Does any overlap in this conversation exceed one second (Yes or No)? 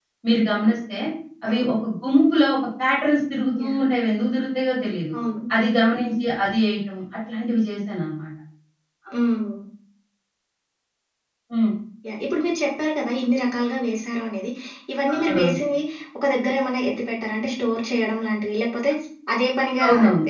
No